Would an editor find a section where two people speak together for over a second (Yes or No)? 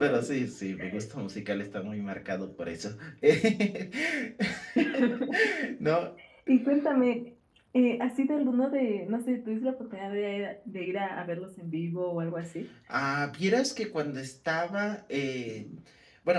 No